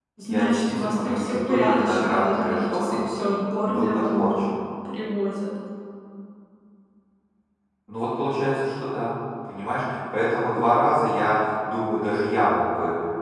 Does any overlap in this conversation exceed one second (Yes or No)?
Yes